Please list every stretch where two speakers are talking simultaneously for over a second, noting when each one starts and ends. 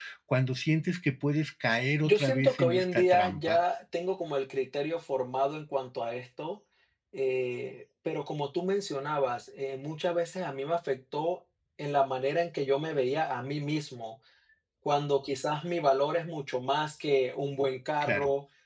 2.1-3.6

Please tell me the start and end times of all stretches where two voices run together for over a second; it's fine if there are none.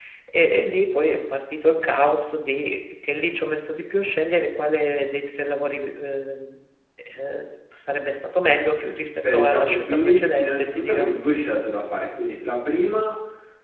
9.3-11.1

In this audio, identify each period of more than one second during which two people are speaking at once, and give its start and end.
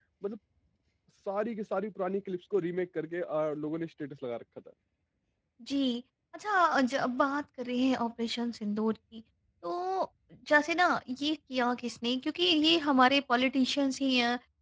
none

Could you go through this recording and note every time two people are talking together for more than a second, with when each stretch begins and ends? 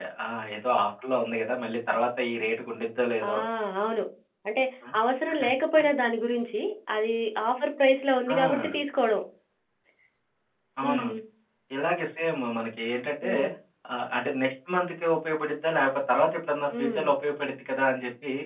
none

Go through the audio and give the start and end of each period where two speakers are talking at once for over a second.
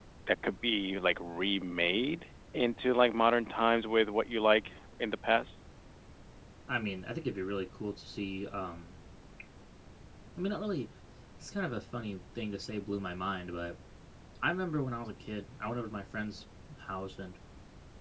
none

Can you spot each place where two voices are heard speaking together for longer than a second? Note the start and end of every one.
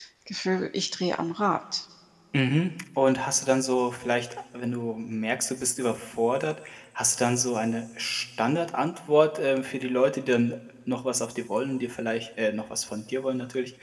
none

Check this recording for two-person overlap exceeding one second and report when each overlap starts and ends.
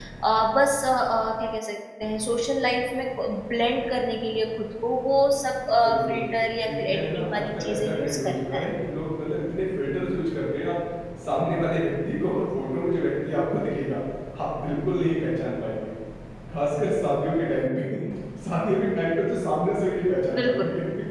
6.6-8.6

